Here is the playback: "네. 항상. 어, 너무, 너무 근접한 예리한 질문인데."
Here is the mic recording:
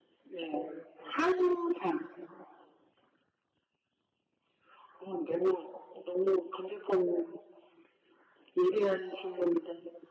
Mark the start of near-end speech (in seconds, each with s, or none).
none